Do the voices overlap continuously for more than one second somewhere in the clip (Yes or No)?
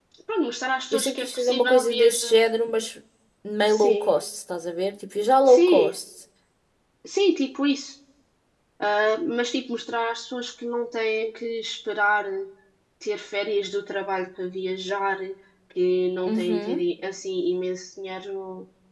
Yes